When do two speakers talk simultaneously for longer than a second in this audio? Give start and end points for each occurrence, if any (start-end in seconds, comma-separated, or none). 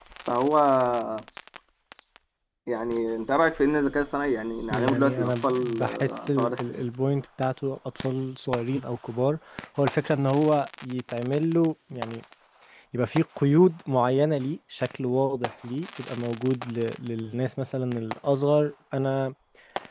4.7-6.8